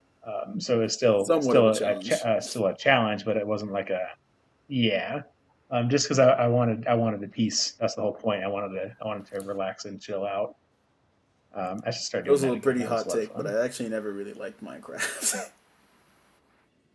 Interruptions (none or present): present